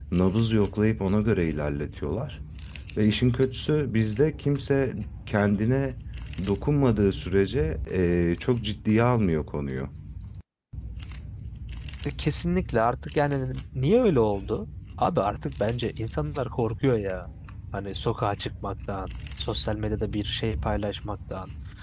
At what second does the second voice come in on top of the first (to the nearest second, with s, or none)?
none